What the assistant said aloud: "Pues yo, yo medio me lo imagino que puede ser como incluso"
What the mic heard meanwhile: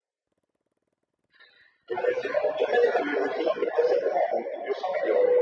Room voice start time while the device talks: none

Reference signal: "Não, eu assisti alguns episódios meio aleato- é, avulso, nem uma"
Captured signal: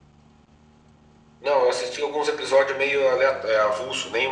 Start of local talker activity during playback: none

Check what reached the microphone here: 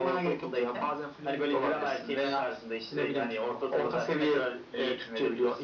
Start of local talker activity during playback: none

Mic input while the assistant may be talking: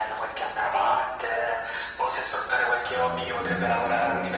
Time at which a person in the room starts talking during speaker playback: 3 s

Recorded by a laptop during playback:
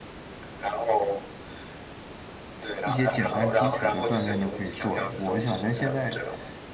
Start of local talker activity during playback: 3 s

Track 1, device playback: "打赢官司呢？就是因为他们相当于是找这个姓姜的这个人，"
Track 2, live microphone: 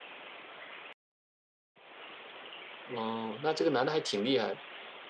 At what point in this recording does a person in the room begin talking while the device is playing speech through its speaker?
3 s

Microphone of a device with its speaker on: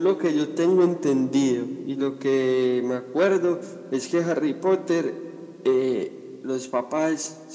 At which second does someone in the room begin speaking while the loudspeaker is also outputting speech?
none

